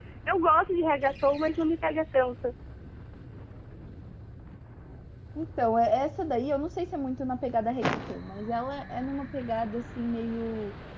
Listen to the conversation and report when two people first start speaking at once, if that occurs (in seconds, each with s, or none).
none